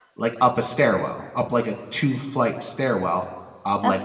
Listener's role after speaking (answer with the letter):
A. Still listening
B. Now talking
A